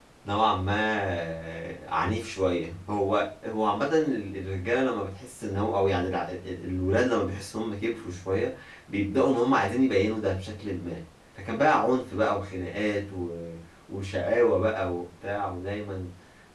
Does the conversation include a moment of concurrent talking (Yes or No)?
No